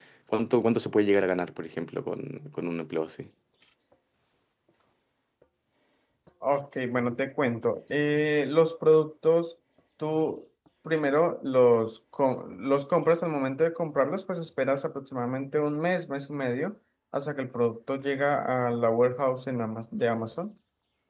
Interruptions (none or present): none